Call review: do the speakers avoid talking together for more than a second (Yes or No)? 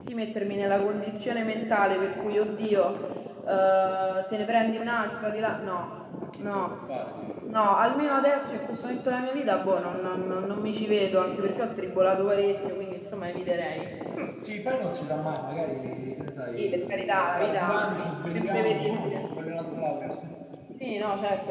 No